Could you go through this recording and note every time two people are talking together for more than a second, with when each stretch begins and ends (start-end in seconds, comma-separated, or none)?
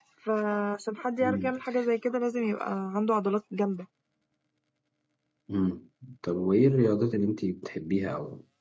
none